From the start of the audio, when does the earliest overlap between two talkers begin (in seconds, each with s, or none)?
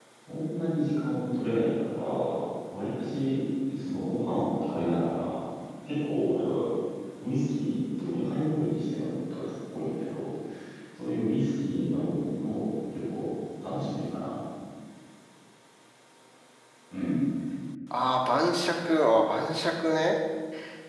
none